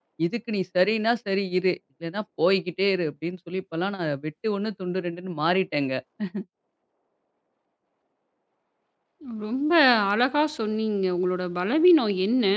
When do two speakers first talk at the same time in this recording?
none

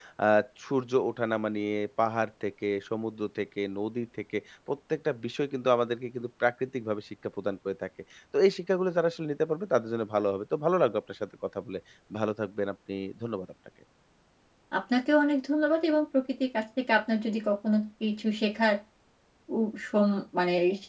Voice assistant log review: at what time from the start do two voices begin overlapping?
none

